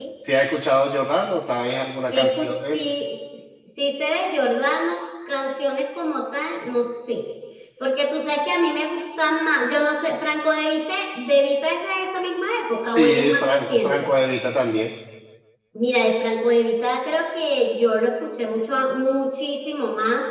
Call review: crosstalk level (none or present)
present